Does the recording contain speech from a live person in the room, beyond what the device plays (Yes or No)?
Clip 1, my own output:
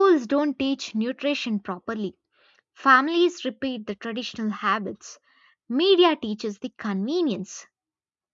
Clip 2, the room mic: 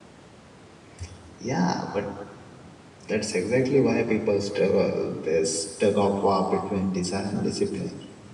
Yes